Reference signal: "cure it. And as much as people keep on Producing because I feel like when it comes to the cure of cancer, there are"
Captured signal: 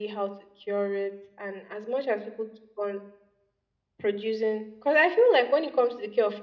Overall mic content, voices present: echo only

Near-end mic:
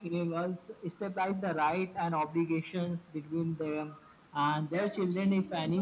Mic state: both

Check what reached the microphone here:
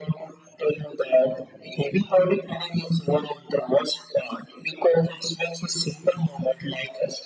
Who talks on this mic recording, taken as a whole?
echo only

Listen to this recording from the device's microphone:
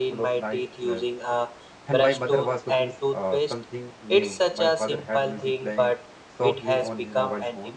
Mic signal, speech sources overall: both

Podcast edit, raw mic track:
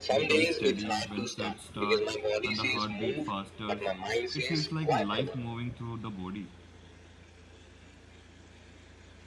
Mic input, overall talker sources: both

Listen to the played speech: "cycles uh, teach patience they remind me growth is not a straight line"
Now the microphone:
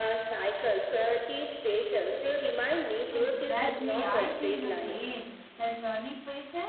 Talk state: both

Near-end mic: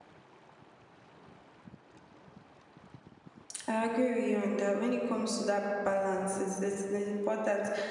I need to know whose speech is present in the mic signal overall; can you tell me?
user only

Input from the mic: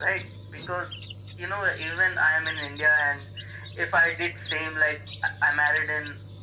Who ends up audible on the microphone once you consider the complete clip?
echo only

